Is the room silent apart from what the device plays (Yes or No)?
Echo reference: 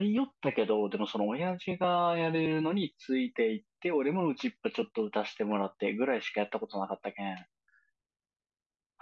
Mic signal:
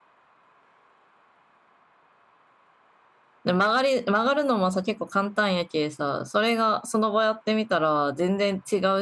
No